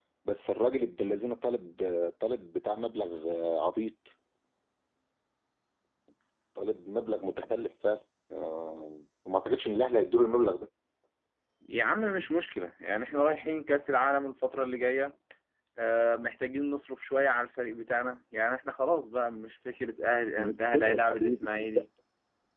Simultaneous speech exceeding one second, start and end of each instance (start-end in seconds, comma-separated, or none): 20.4-21.7